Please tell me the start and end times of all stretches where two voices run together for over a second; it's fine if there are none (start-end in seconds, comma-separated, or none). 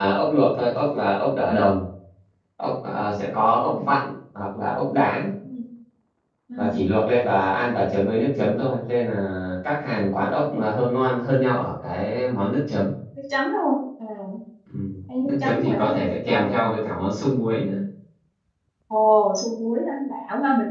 15.2-16.5